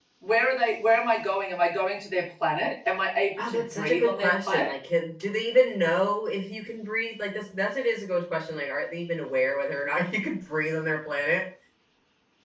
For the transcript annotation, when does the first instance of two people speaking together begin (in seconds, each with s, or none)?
3.4 s